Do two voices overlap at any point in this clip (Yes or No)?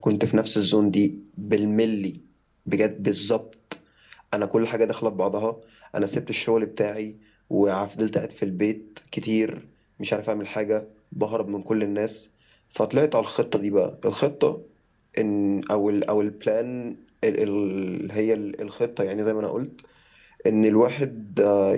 No